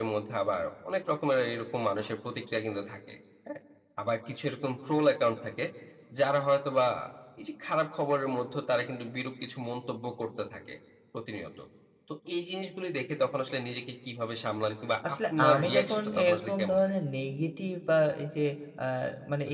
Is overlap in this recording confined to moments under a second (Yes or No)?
No